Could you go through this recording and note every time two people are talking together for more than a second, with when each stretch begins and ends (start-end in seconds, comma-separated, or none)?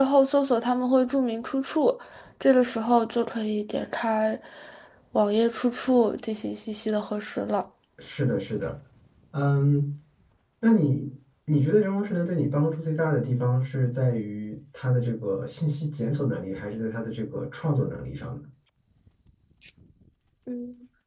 none